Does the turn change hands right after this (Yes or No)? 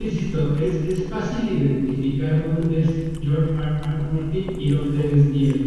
No